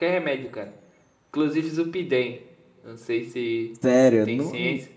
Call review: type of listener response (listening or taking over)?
taking over